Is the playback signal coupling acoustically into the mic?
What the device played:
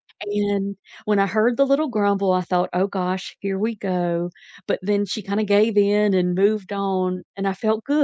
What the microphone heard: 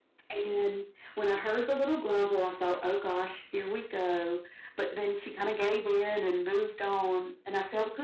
Yes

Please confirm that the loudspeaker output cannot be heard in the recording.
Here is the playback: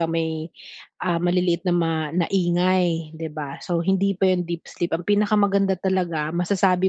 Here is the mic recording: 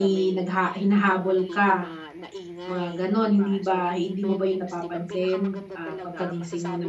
No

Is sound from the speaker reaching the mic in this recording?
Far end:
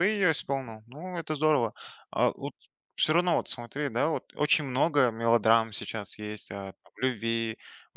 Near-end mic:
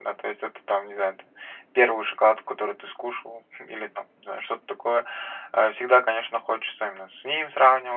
No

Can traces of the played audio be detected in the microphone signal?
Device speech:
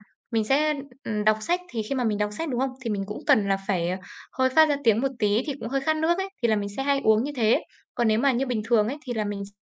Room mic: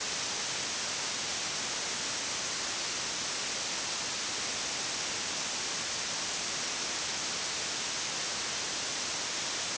No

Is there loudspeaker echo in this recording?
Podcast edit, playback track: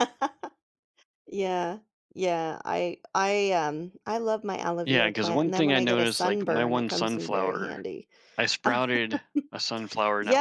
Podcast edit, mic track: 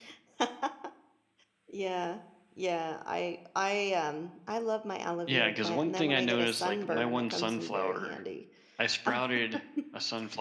Yes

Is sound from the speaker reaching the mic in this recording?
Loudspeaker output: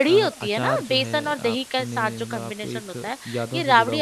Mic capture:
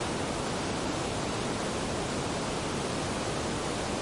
No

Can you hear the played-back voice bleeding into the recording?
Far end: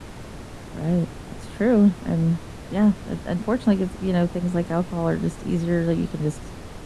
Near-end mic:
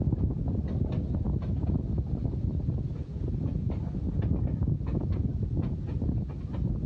No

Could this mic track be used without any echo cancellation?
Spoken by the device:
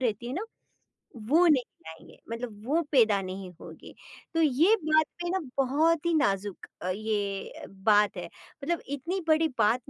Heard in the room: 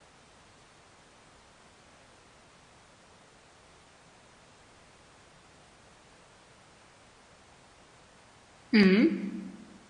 Yes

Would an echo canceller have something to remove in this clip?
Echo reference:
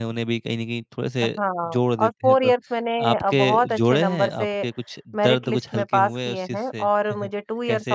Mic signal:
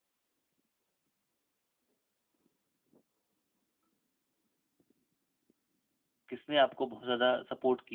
No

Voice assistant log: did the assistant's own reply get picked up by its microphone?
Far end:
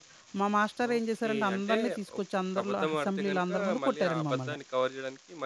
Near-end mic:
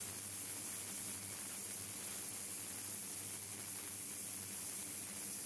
No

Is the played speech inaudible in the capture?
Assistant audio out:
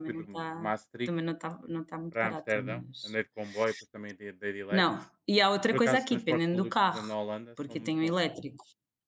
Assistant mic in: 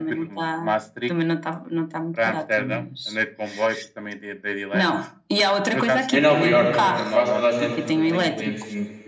No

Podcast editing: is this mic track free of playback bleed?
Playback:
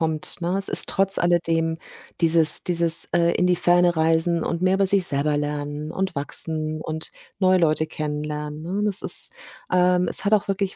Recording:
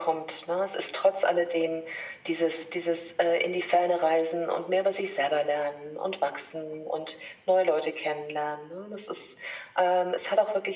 No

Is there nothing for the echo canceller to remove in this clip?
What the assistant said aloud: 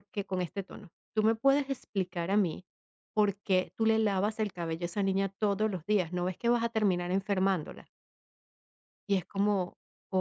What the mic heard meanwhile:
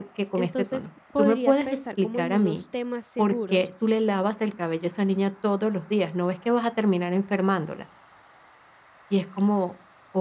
No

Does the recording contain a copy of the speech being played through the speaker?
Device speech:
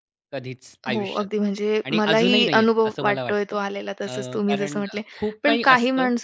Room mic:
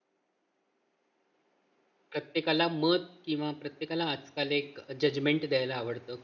No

